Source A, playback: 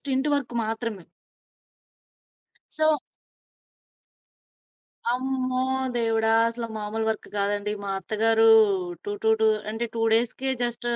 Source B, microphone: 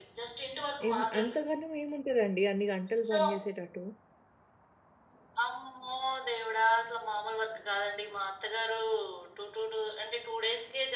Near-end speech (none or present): present